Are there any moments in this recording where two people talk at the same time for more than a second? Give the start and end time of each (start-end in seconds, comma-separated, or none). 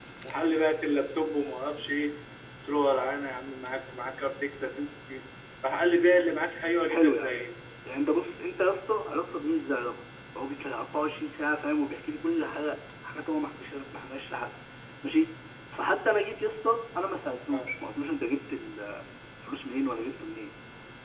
none